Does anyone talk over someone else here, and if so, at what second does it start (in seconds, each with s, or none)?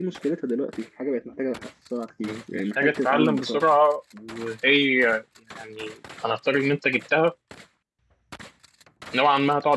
2.2 s